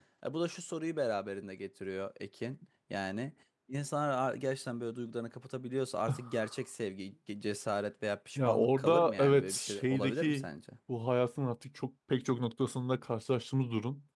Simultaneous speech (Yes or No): Yes